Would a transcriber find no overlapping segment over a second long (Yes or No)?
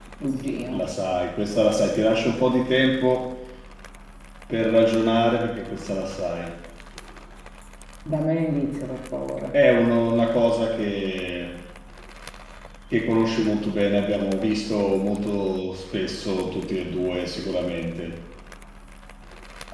Yes